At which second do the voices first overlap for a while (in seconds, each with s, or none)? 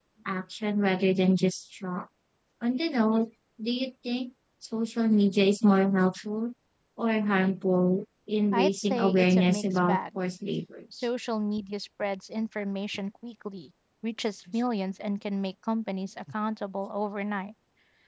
8.5 s